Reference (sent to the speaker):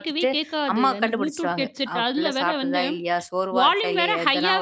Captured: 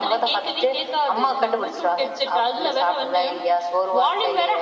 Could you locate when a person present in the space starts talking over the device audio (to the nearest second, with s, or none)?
none